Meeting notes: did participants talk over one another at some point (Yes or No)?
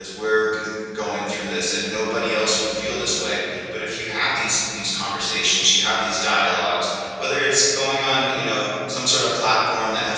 No